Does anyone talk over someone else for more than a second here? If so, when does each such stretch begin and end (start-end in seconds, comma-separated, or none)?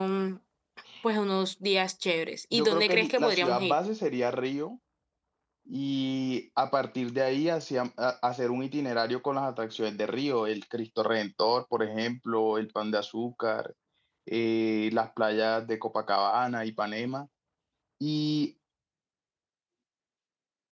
2.5-3.8